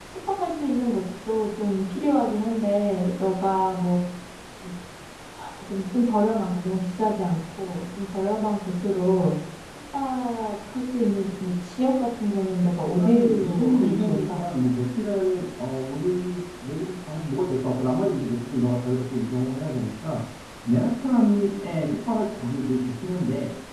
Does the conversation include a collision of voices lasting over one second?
Yes, from 13.0 s

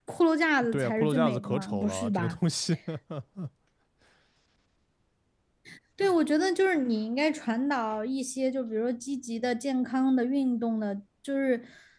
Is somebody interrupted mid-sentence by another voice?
Yes, from 0.7 s

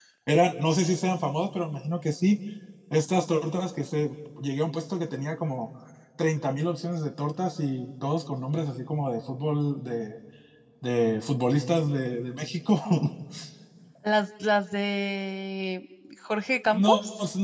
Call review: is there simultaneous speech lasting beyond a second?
No

